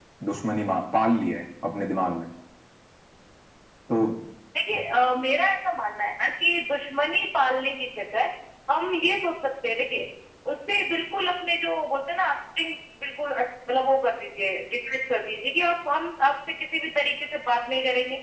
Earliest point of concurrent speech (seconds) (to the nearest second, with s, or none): none